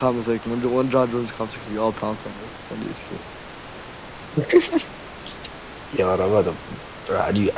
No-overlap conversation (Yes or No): Yes